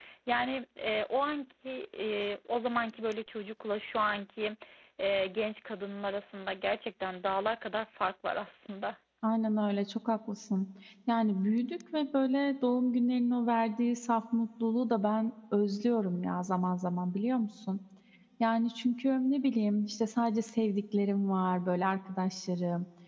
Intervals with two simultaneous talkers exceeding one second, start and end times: none

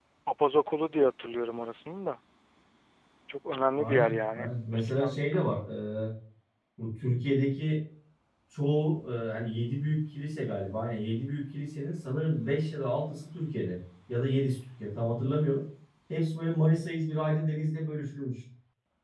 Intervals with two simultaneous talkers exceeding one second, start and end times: 3.8-5.4

